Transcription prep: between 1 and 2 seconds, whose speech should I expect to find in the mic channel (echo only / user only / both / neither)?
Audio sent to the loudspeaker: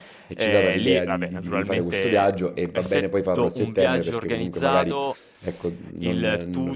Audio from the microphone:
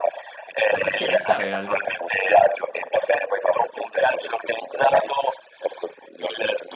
both